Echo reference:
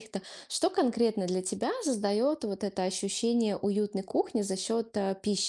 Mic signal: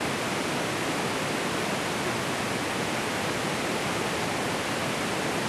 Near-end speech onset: none

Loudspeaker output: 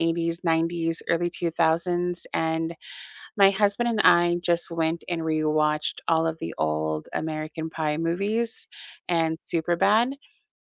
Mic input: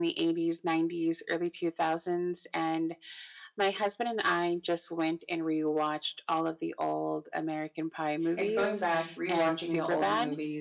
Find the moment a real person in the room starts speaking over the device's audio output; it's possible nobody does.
8 s

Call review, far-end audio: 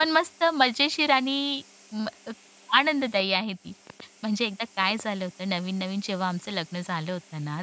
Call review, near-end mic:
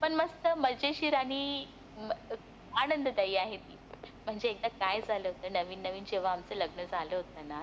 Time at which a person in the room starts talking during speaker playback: none

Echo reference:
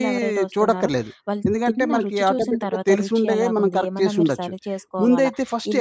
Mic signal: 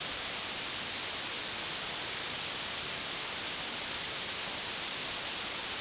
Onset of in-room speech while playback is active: none

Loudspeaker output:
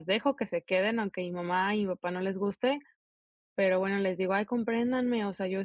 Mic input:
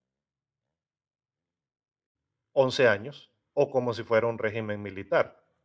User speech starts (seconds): 3 s

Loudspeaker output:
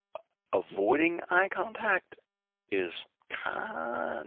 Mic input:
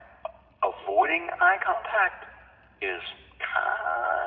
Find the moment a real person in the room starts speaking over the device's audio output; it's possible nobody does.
none

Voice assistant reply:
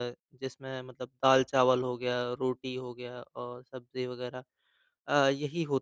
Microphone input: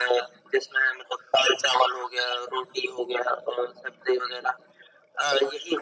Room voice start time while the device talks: none

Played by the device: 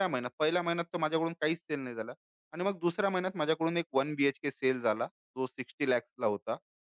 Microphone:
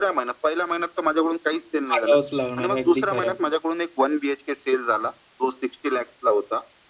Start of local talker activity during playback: 2 s

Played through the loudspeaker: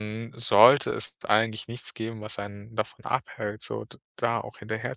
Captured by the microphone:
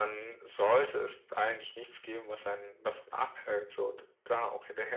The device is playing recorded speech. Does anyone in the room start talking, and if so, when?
none

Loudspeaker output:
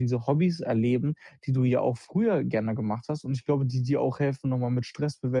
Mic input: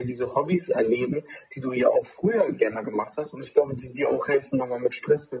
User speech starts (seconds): none

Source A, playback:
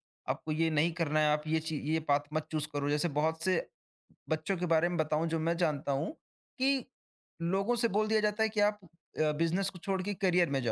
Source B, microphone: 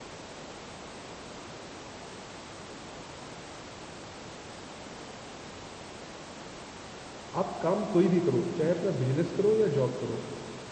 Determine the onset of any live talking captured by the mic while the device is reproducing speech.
7 s

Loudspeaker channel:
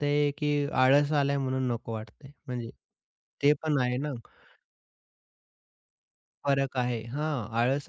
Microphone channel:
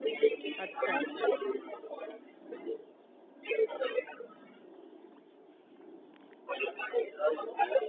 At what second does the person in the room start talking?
1 s

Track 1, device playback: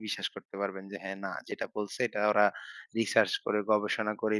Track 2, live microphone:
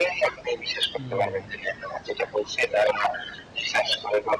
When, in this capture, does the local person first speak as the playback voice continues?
1 s

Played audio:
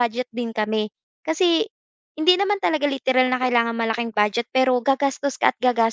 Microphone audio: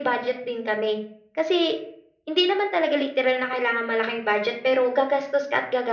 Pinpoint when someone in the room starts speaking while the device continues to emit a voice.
none

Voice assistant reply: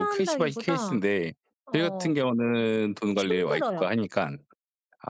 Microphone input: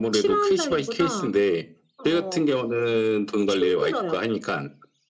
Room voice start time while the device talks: none

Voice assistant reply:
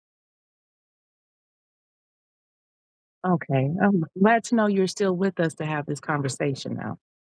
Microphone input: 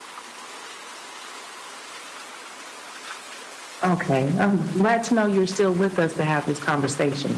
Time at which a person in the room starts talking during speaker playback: none

